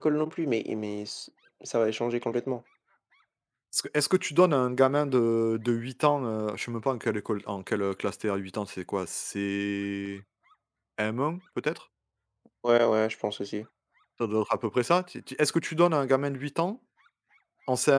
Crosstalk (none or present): none